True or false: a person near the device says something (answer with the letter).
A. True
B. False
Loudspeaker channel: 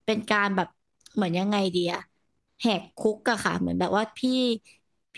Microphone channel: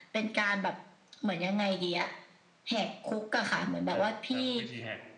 A